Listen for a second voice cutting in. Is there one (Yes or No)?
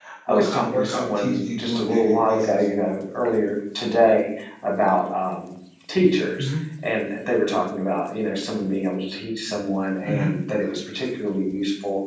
Yes